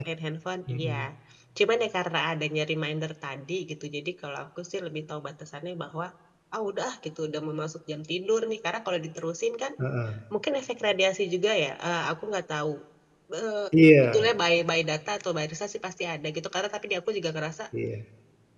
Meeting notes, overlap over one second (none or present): none